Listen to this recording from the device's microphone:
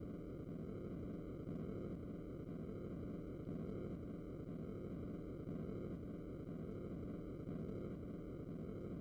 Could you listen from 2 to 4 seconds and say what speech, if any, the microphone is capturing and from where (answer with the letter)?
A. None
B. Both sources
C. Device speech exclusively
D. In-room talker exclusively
A